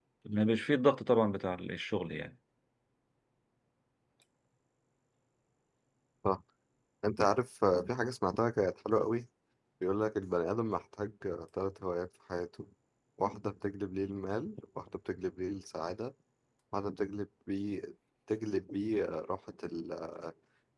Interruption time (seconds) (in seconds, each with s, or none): none